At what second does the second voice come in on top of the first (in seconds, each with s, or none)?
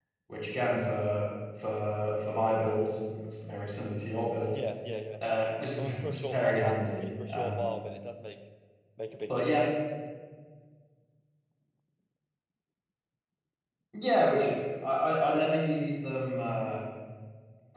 5.8 s